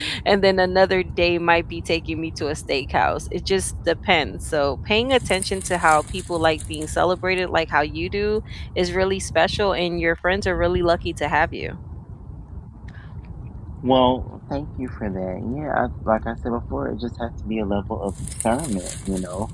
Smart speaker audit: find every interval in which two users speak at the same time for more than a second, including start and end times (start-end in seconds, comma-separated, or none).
none